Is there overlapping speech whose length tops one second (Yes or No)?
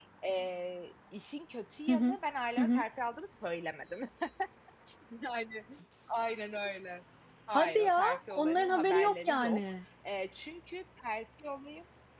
Yes